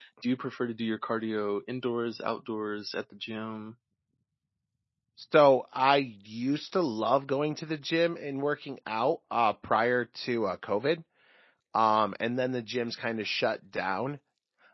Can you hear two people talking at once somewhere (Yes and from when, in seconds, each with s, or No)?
No